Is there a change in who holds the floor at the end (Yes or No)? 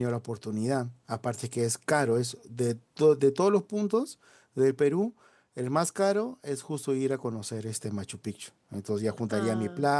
No